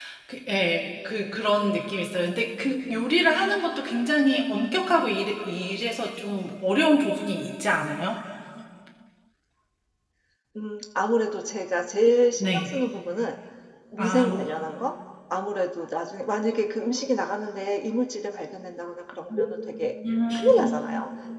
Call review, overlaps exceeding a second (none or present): none